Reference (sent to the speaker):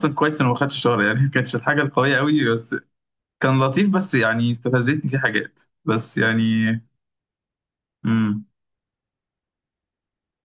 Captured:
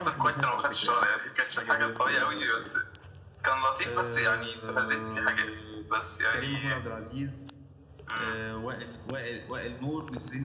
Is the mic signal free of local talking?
No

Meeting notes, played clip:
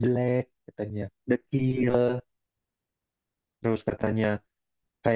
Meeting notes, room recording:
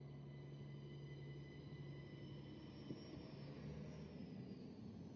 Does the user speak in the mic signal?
No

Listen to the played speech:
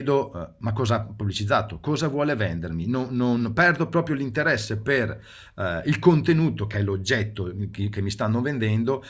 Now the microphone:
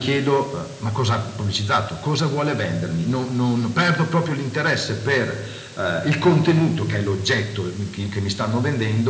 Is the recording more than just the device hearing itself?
No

